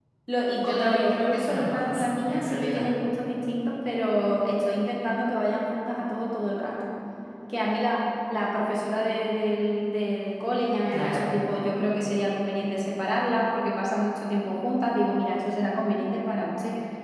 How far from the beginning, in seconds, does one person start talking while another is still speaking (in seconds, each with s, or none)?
0.6 s